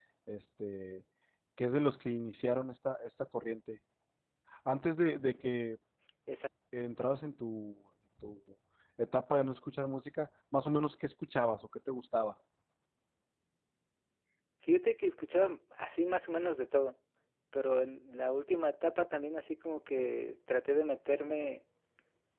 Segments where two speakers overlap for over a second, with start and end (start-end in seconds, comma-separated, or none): none